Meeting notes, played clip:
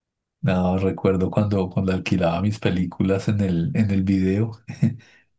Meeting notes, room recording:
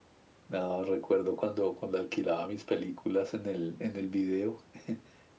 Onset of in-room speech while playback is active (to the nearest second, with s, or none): none